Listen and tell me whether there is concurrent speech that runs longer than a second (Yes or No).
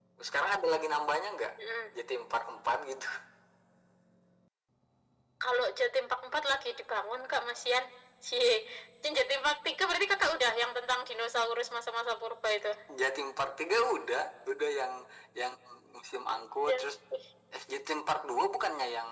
No